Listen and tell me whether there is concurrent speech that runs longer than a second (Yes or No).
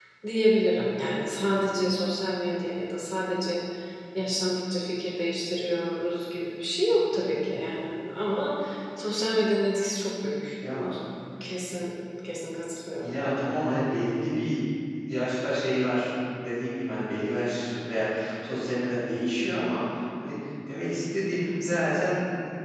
No